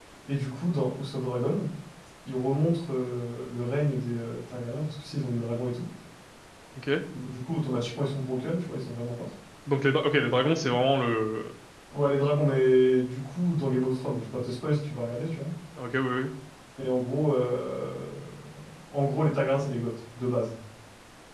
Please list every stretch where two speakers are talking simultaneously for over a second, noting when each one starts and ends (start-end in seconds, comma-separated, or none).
none